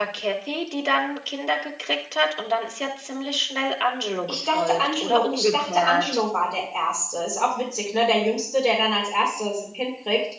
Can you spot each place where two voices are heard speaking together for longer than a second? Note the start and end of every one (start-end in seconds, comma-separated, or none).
4.3-6.2